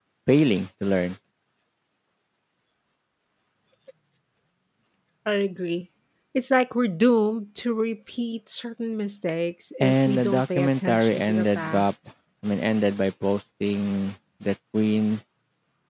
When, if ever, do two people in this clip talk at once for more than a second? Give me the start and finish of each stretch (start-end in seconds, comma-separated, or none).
9.8-11.9